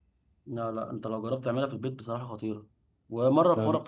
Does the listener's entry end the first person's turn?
No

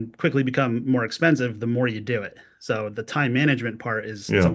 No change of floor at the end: Yes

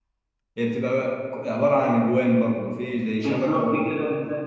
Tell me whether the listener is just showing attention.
No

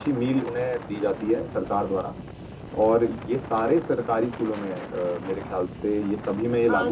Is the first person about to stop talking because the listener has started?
Yes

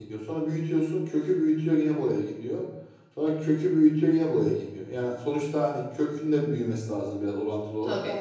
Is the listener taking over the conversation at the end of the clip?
No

